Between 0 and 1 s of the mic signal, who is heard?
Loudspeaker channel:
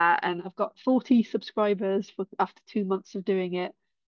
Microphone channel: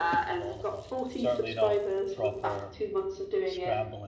both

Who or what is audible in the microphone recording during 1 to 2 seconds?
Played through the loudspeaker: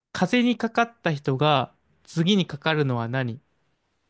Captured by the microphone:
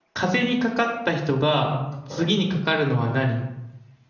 both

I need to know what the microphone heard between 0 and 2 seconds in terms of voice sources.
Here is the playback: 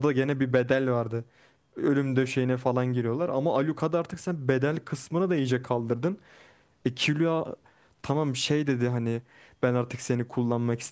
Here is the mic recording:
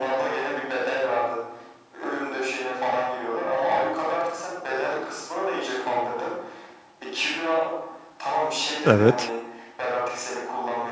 echo only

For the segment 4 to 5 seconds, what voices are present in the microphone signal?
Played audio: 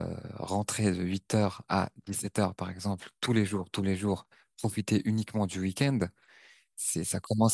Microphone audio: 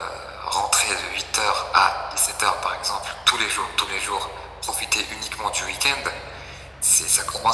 echo only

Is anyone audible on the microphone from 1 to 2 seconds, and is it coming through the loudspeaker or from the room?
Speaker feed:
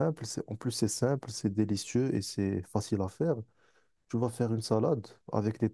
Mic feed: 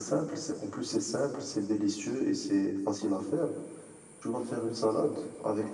echo only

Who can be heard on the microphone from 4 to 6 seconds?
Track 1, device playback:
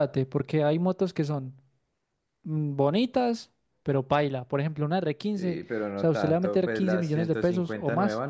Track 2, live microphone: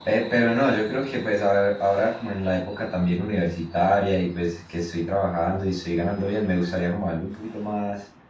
user only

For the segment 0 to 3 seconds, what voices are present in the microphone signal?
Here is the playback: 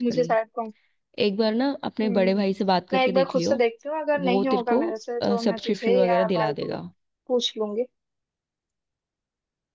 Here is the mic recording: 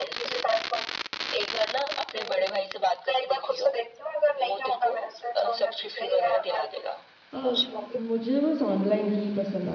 echo only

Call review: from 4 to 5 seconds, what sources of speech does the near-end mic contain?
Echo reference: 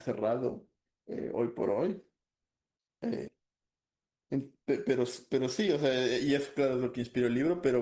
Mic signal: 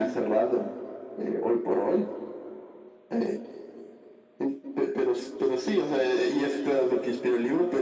echo only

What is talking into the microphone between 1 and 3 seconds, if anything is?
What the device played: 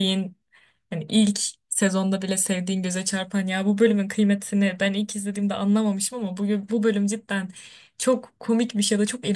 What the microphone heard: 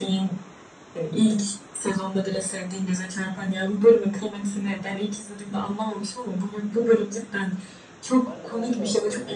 echo only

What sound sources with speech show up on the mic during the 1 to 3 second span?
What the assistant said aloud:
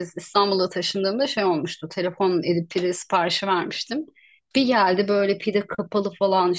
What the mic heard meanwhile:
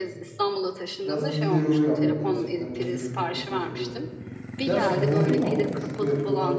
both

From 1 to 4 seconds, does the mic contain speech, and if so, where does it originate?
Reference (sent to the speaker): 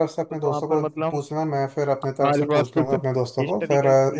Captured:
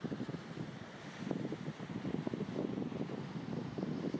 neither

